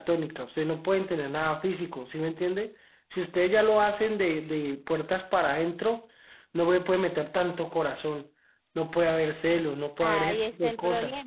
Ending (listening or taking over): taking over